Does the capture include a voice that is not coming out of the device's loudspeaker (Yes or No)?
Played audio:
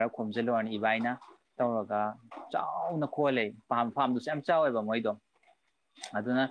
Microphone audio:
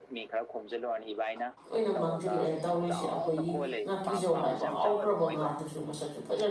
Yes